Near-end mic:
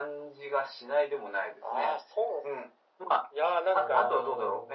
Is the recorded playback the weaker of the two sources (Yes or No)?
No